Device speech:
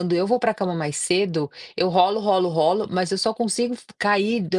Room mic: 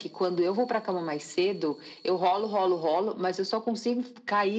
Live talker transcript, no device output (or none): none